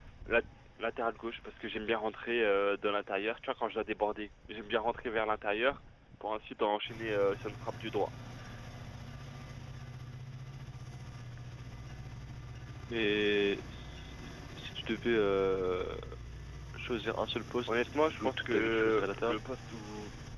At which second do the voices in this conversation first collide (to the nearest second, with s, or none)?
18 s